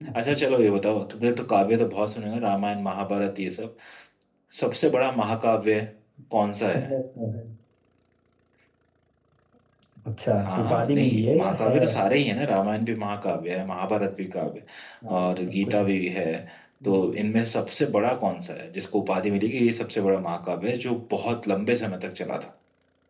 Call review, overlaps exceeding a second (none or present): present